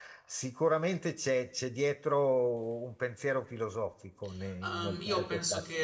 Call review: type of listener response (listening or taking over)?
taking over